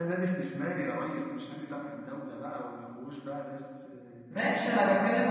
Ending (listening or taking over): taking over